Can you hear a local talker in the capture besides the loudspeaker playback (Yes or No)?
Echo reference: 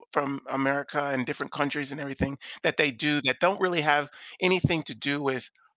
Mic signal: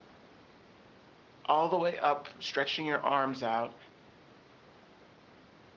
Yes